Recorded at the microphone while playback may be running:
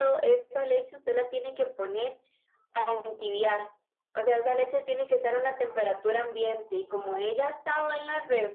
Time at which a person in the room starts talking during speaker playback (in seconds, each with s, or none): none